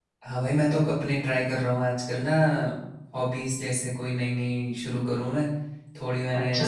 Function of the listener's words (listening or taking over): listening